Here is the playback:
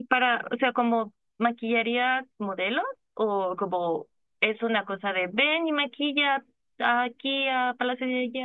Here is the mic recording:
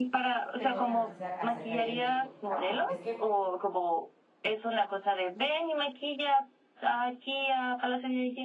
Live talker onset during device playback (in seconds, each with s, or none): 0.6 s